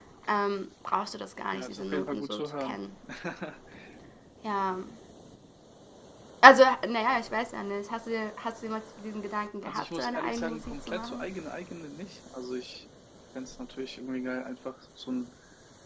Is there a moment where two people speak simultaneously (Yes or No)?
Yes